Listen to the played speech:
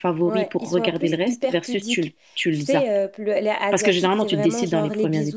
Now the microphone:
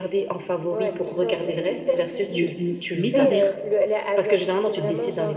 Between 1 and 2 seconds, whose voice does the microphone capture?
echo only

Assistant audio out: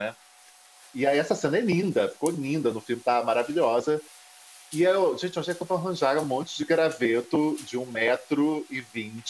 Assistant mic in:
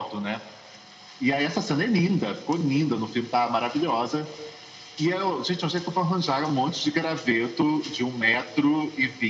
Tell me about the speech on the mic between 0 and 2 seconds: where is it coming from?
echo only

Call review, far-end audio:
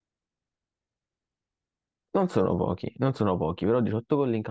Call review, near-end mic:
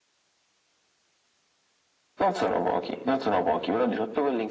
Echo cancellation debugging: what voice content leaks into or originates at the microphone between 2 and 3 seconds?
echo only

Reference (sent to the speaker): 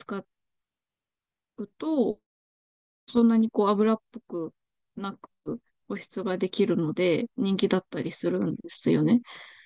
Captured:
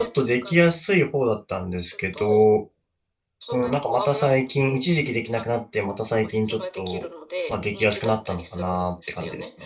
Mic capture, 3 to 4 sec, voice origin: both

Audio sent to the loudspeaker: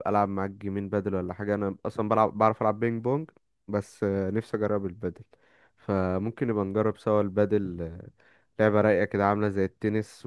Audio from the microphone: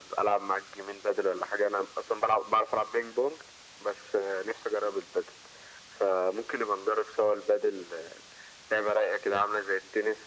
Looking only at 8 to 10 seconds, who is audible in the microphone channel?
echo only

